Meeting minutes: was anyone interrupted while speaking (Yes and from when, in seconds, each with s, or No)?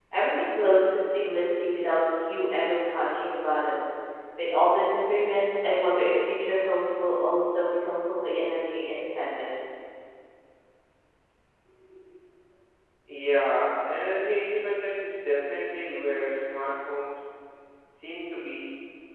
No